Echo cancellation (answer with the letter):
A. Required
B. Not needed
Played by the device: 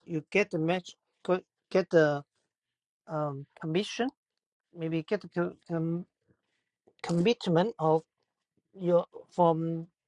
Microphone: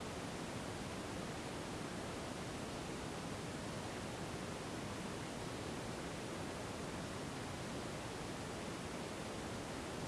B